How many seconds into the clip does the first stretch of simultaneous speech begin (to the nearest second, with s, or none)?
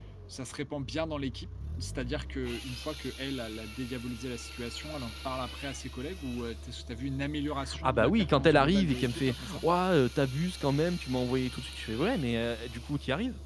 8 s